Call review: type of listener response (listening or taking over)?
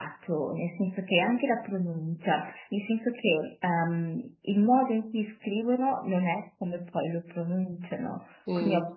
listening